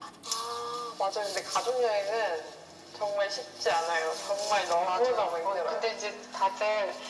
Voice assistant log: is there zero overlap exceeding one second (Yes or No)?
No